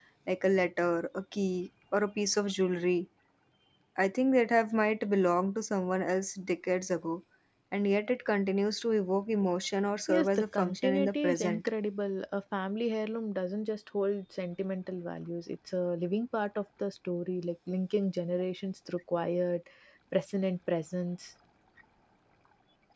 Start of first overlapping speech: 10.1 s

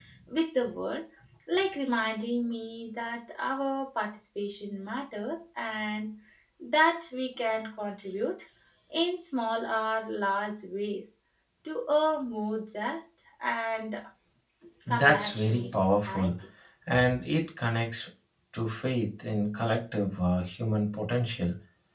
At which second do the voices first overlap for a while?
15.0 s

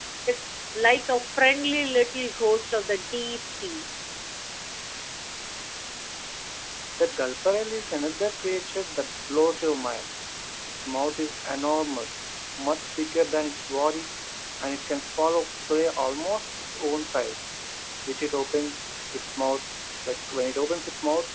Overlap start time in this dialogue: none

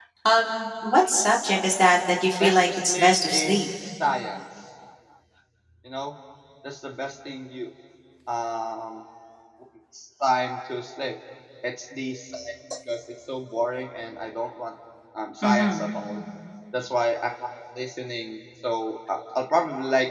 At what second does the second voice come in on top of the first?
2.4 s

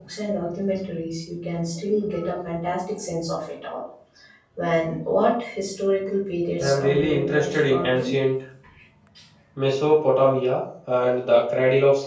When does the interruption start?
6.6 s

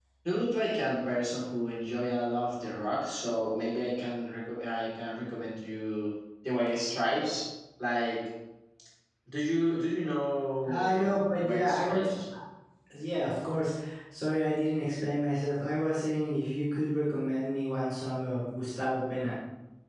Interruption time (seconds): 10.7 s

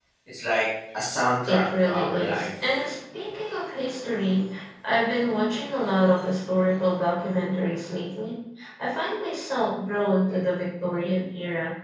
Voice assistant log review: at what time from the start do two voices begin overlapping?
1.5 s

